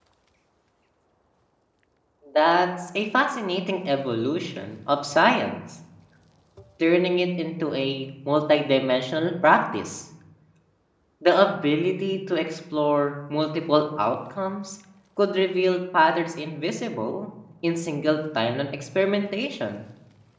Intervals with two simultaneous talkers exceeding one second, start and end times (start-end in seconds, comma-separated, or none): none